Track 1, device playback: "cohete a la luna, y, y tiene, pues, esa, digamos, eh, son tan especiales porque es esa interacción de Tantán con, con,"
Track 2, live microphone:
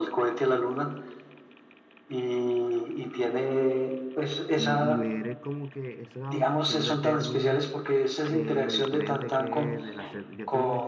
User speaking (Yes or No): Yes